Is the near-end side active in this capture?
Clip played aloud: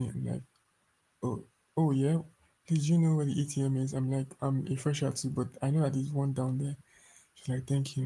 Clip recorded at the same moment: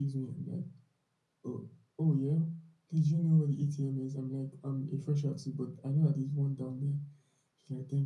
No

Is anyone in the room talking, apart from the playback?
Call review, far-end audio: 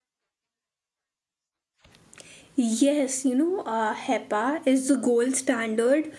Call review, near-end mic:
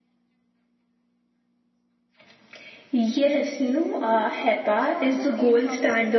Yes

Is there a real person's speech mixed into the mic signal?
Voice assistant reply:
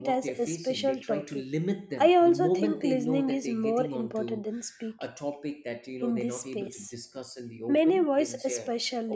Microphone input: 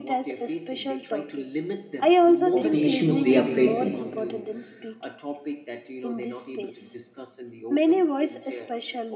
Yes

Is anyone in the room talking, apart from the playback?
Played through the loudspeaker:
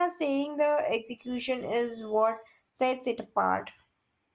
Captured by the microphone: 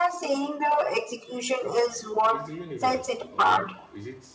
Yes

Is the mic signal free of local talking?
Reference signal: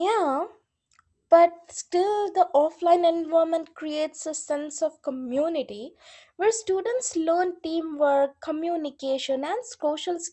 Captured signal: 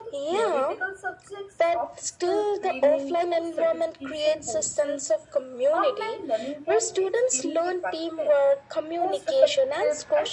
No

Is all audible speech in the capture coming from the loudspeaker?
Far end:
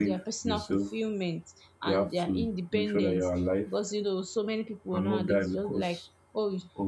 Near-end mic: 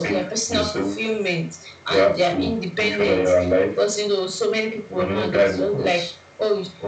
Yes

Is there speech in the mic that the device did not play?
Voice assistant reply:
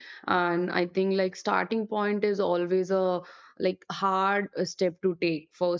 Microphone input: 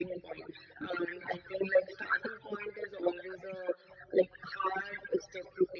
No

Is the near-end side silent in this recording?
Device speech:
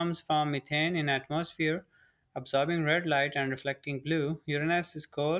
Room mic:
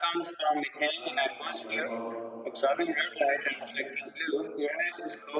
No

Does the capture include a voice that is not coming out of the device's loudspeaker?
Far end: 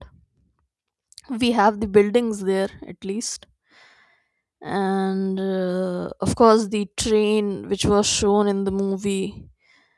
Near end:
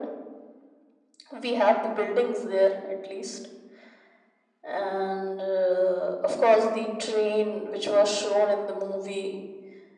No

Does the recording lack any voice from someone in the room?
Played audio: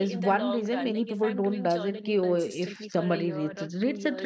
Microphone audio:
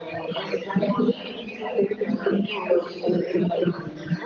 Yes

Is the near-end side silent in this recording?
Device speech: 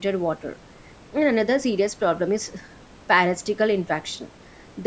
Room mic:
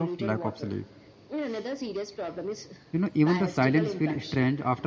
No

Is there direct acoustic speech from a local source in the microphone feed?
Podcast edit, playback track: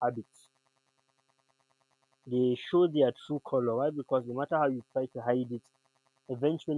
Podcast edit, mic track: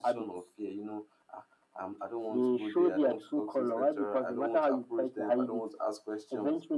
Yes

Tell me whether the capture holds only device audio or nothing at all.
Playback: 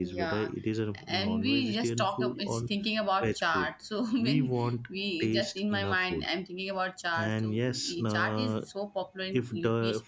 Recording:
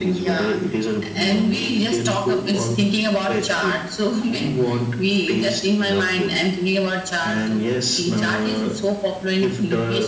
Yes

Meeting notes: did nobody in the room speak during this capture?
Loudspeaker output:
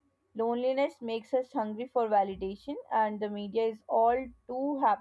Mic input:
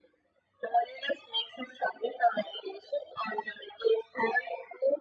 Yes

